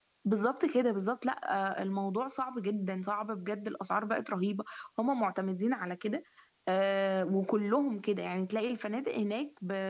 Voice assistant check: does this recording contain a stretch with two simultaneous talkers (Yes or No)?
No